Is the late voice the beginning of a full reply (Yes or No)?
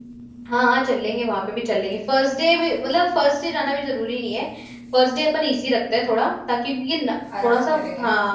No